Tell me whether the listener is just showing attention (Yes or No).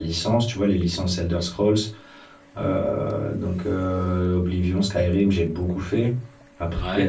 Yes